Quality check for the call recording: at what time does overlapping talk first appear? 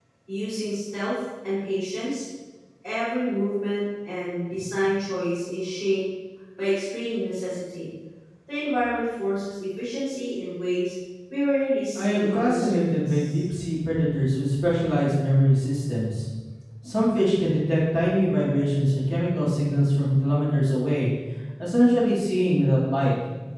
11.9 s

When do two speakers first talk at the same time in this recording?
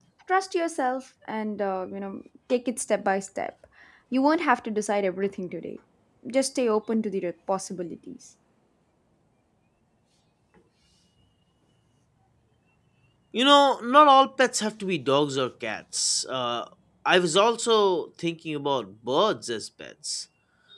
none

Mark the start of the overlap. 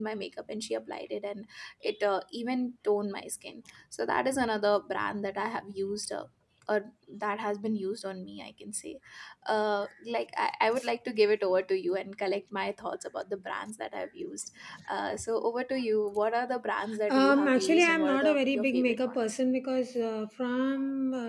17.1 s

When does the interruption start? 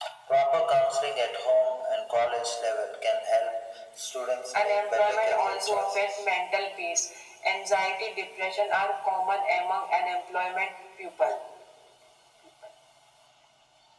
4.5 s

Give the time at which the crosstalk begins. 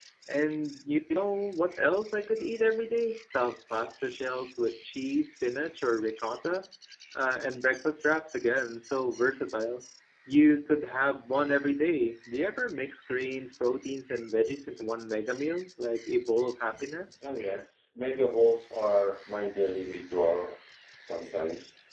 none

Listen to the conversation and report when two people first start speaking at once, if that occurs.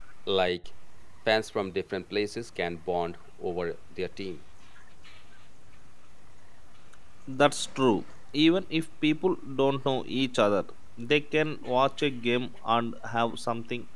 none

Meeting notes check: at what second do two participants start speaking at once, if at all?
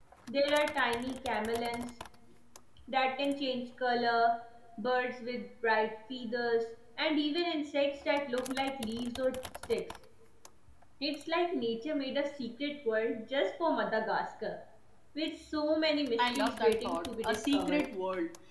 16.2 s

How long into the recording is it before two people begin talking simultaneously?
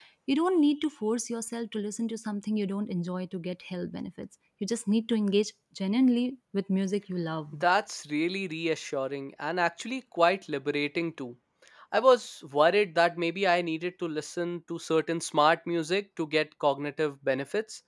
none

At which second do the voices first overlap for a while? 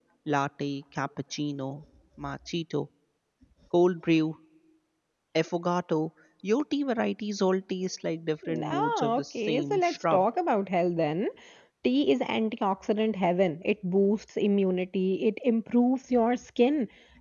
8.4 s

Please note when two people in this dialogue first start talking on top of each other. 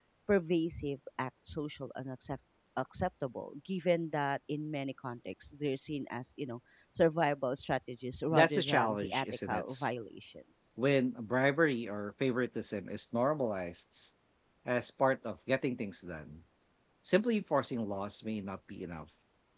8.3 s

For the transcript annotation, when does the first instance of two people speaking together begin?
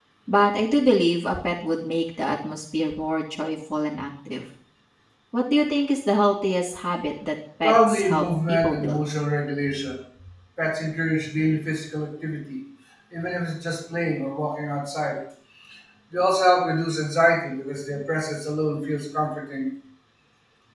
7.6 s

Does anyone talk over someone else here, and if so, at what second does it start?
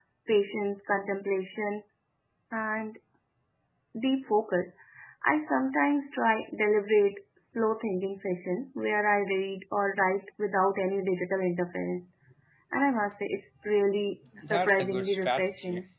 14.3 s

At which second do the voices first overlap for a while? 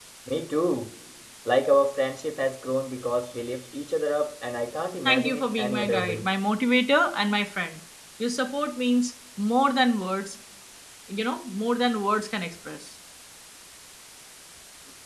5.0 s

